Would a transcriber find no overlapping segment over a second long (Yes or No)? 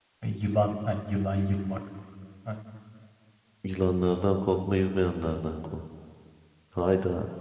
Yes